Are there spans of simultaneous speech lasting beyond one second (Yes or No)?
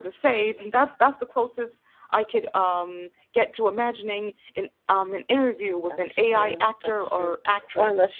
Yes